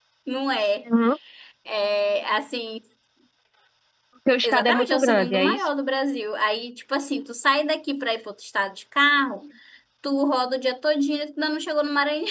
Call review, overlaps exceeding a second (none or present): present